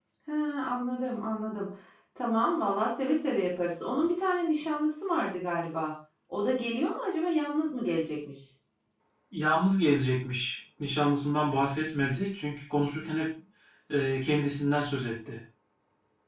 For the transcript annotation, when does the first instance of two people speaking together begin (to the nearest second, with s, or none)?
none